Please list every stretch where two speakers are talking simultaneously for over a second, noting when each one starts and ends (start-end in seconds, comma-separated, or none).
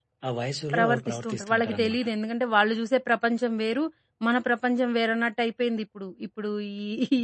0.7-2.0